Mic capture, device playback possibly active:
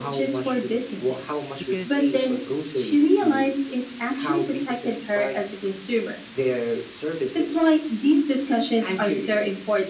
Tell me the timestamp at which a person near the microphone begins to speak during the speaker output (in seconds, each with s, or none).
1.6 s